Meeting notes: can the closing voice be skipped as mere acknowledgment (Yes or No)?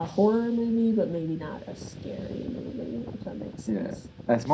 No